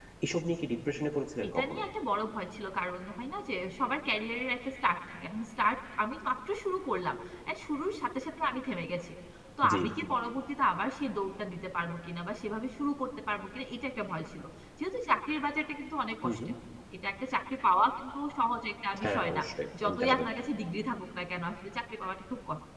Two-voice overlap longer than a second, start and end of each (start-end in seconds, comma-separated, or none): none